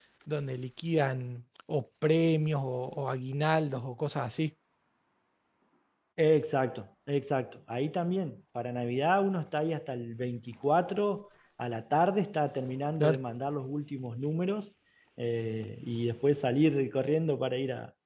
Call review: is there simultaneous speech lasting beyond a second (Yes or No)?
No